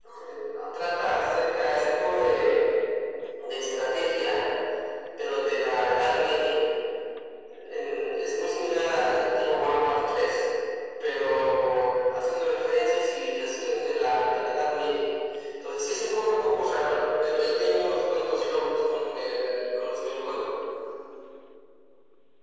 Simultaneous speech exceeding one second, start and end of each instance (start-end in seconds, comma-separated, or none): none